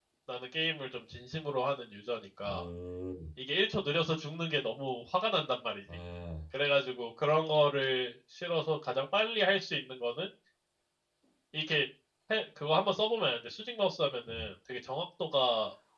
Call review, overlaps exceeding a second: none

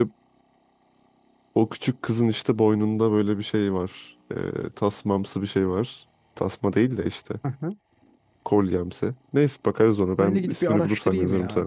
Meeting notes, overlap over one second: present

